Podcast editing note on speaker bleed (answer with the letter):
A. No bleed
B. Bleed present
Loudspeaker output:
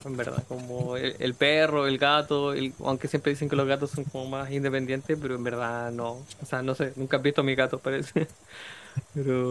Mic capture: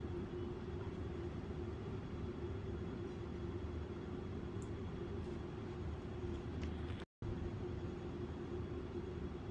A